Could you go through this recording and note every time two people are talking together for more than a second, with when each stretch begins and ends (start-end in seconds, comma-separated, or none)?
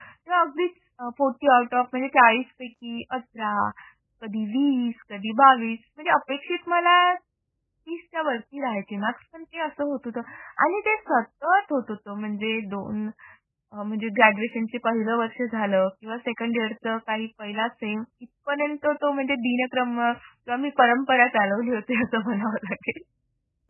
none